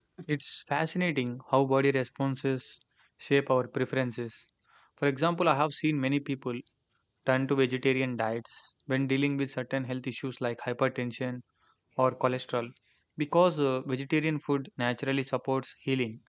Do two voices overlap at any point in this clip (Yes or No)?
No